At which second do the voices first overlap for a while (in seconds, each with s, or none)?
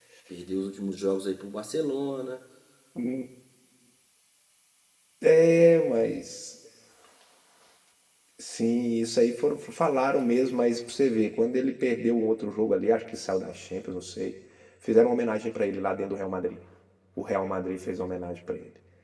none